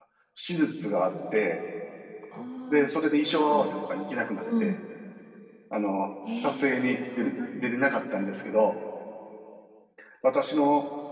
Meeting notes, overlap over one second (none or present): present